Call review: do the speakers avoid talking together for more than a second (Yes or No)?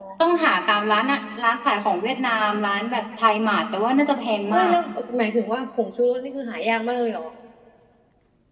Yes